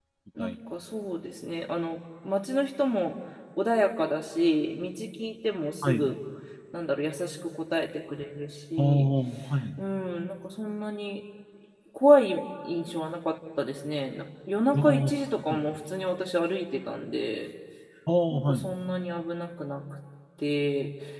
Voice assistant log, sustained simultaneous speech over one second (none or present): none